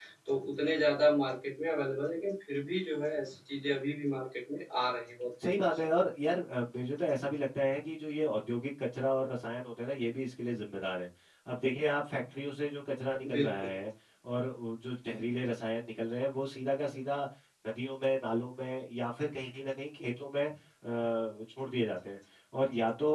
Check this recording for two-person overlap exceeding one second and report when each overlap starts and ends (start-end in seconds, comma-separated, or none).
none